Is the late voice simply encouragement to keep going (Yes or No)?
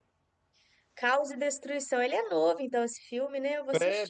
No